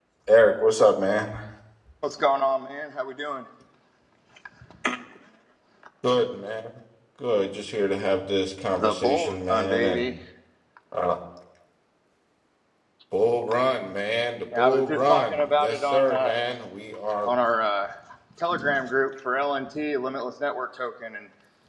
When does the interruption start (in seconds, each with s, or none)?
8.8 s